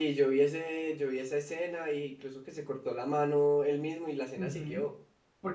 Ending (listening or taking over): taking over